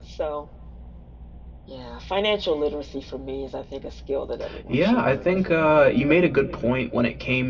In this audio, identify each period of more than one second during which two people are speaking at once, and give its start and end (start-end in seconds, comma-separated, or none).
4.7-6.0